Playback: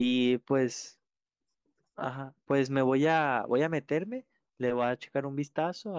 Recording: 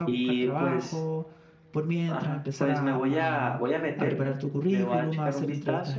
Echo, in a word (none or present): present